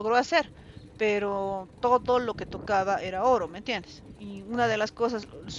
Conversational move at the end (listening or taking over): listening